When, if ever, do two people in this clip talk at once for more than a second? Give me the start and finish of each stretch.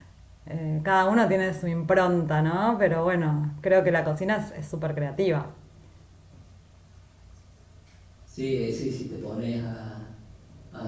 none

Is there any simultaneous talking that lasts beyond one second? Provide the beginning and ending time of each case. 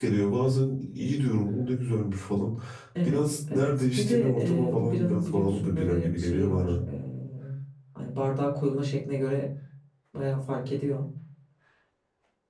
3.0-6.7

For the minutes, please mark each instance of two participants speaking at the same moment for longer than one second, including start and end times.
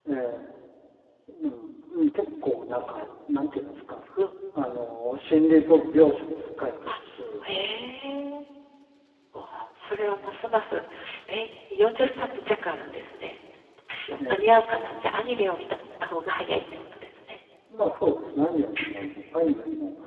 none

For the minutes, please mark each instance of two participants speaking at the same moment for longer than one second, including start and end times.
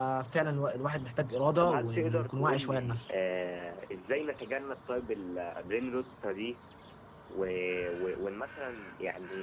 1.6-3.1

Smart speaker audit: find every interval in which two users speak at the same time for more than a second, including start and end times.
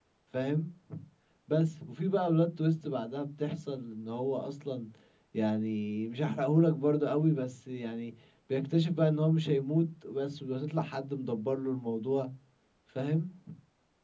none

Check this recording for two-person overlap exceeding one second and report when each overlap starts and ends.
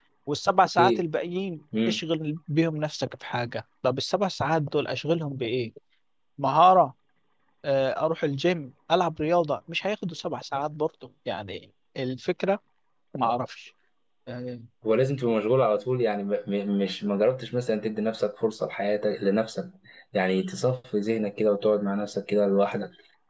none

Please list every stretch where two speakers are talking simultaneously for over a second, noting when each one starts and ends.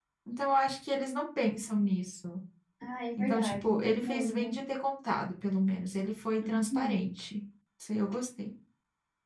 3.2-4.5

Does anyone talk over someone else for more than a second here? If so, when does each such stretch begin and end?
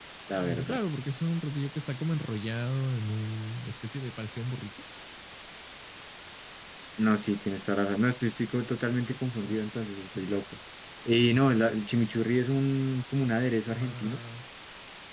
none

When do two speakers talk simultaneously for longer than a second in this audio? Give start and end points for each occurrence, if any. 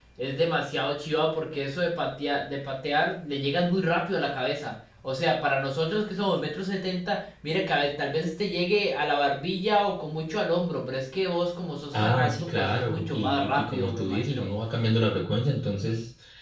12.0-14.5

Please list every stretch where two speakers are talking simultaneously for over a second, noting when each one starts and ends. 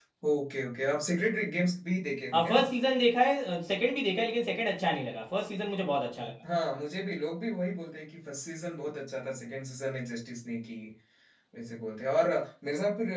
none

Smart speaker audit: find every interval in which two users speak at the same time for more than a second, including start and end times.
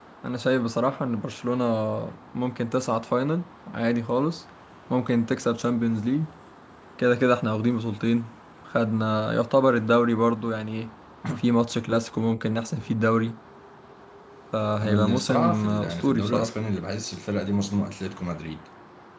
14.8-16.5

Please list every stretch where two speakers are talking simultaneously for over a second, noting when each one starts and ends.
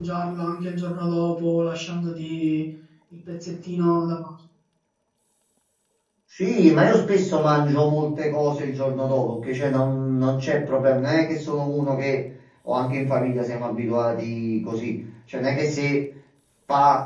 none

